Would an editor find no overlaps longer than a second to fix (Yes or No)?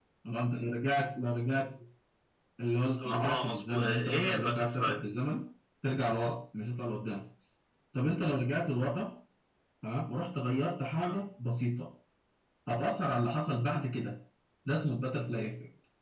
No